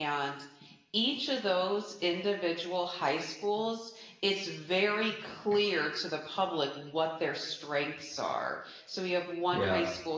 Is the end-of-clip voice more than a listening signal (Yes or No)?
No